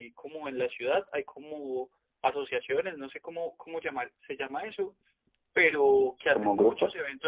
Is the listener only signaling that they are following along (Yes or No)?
Yes